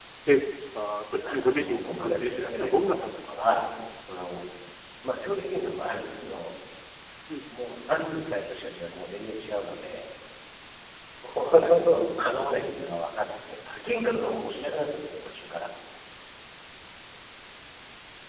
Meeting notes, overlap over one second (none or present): present